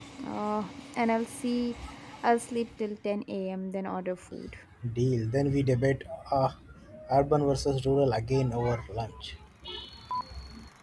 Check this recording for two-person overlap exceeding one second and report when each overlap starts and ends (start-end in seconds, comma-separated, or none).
none